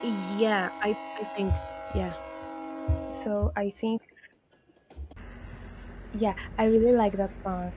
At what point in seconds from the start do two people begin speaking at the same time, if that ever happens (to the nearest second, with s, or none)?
none